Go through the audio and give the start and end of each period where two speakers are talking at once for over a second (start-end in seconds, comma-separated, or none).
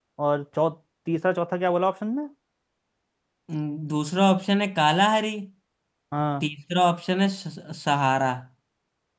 none